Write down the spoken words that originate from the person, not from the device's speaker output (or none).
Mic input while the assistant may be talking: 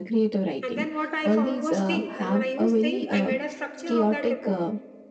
And then what I found was think. And when I used think, I made a structure of that report.